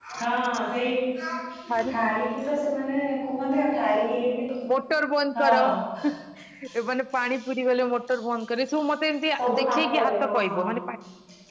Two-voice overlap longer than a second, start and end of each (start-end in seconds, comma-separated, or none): 9.4-10.7